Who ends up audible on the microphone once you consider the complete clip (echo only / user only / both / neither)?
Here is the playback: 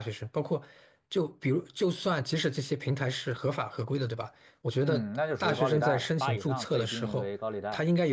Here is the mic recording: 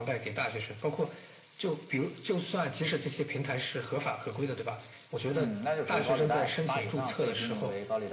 echo only